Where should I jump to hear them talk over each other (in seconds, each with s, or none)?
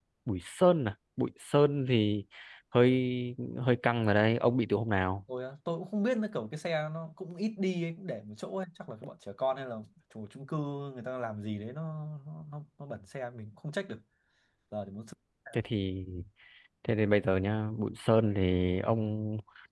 none